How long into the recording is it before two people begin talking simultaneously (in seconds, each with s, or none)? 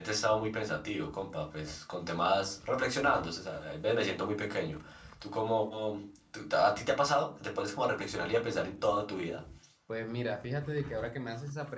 none